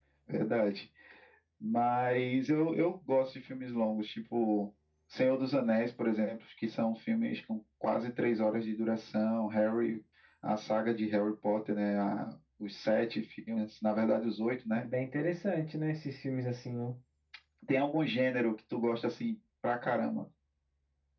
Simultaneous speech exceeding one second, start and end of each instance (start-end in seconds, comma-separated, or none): none